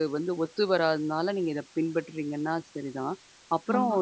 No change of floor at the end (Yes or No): Yes